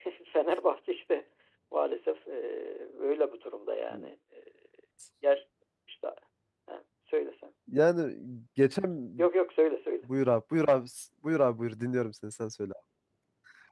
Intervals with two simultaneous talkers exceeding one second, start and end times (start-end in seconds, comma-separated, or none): none